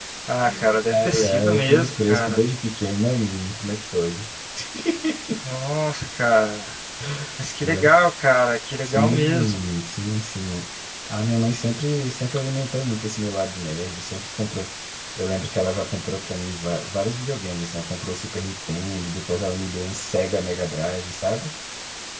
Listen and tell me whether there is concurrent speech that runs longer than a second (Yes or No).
Yes